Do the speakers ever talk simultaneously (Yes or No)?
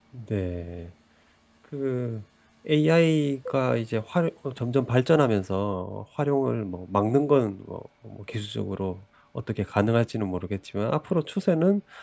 No